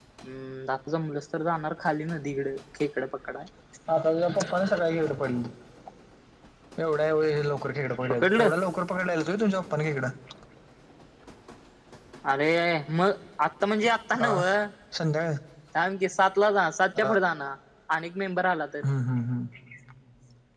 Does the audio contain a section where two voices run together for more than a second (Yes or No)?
No